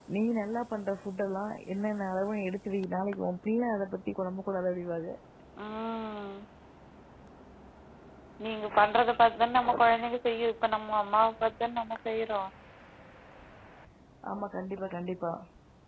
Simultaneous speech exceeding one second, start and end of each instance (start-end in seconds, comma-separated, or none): none